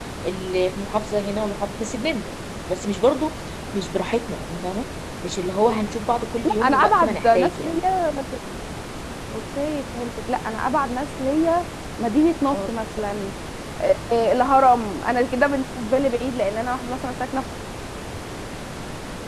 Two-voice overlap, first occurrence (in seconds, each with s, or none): 6.4 s